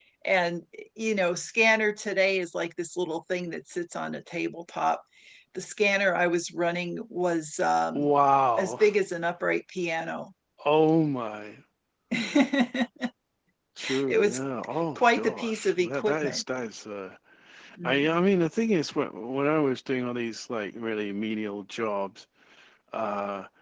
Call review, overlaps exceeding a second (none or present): present